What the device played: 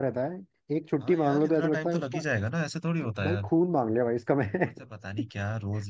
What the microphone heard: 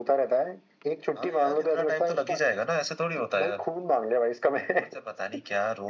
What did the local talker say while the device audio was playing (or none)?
none